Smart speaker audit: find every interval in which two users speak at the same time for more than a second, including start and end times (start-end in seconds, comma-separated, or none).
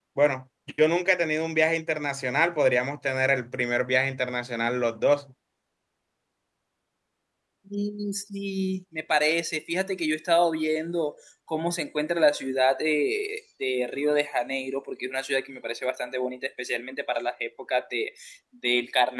none